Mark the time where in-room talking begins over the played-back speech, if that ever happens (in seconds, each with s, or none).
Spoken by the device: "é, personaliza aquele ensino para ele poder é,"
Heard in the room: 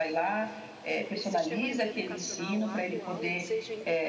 0.9 s